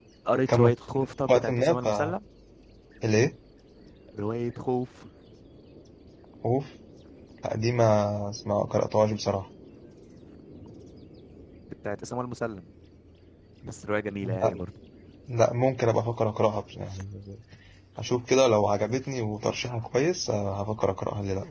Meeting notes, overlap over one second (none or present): present